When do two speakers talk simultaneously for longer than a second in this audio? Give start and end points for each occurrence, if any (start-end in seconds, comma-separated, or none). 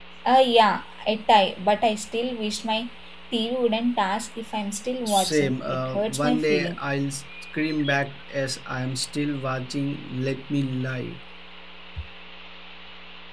5.1-6.8